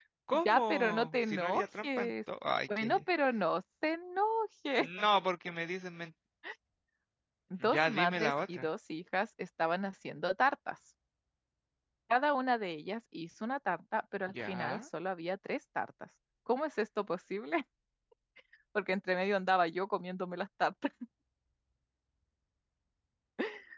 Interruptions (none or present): present